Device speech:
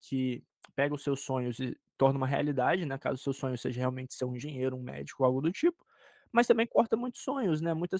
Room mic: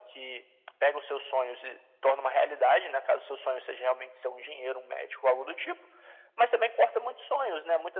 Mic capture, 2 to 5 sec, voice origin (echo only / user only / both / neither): echo only